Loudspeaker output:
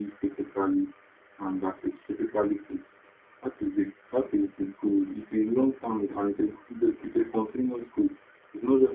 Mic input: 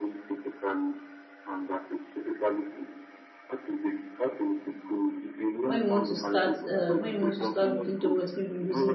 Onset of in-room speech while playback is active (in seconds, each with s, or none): 5.6 s